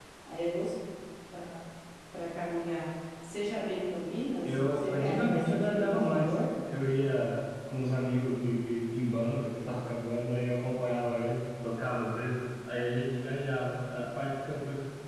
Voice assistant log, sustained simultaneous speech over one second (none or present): present